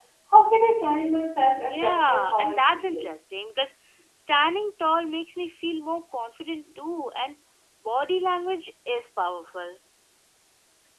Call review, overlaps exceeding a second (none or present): present